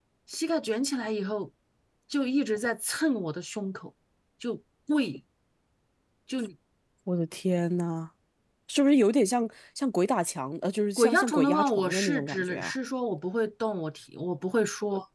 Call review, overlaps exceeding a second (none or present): present